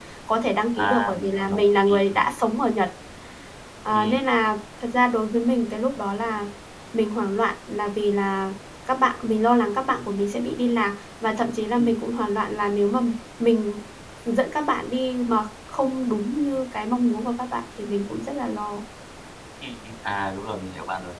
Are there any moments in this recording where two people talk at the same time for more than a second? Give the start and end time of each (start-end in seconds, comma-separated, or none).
0.8-2.2